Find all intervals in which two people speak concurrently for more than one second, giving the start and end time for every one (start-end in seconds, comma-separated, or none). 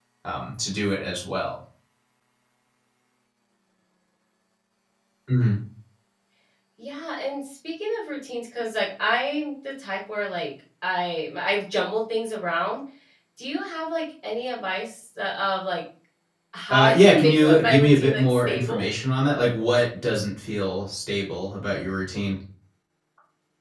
16.7-18.9